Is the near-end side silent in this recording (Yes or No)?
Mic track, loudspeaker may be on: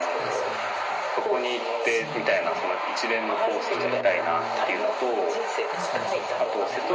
No